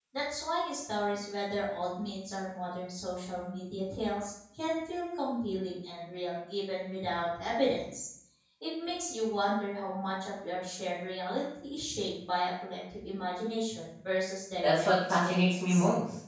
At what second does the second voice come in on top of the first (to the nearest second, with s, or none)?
15 s